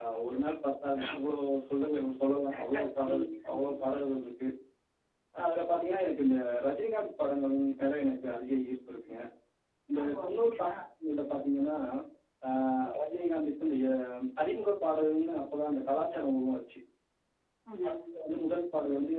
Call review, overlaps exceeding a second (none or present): present